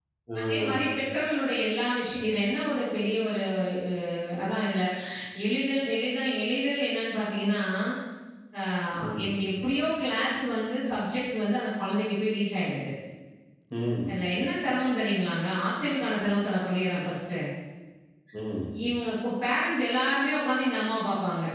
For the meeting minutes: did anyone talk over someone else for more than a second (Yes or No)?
No